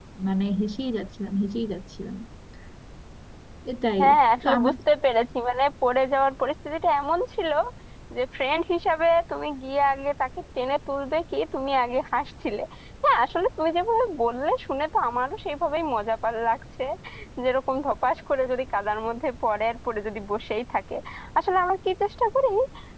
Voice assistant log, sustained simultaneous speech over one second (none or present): none